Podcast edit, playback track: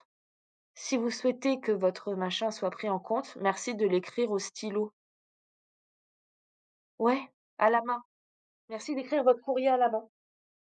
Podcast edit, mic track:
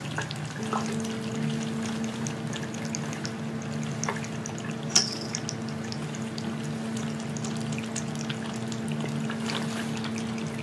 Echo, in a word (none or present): none